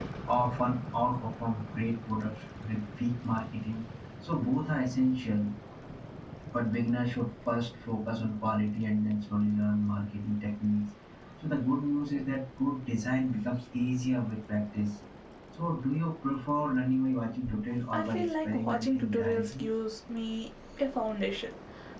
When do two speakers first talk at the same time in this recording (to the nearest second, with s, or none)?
18 s